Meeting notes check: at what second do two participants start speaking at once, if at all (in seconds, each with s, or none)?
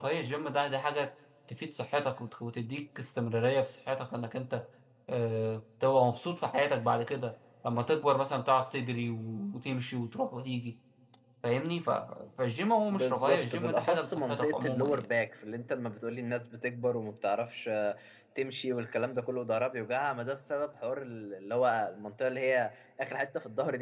12.9 s